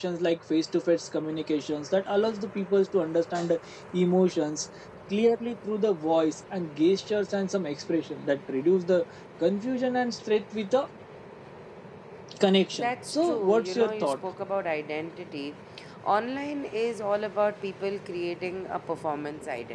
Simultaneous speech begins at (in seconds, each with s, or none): 12.7 s